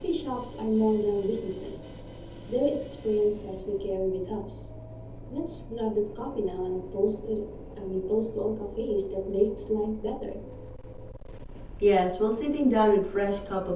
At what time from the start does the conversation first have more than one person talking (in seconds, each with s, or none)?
none